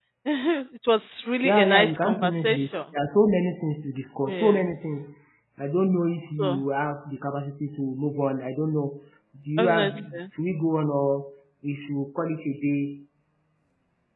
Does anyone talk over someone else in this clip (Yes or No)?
Yes